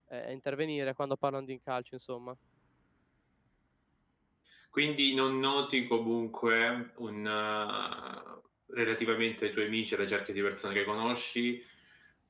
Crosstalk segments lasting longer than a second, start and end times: none

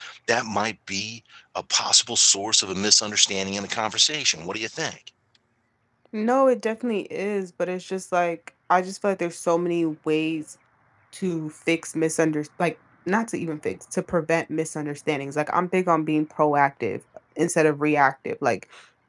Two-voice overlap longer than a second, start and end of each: none

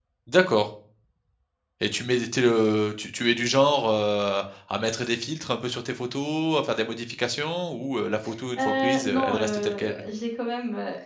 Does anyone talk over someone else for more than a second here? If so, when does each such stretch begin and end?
8.6-10.0

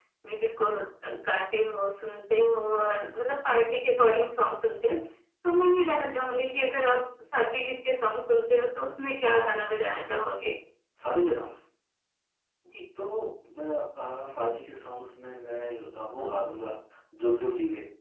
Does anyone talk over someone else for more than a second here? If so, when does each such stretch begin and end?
none

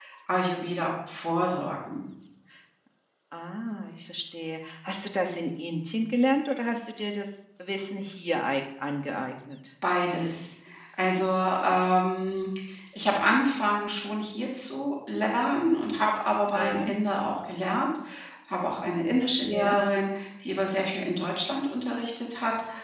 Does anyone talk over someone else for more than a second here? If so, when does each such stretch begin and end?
none

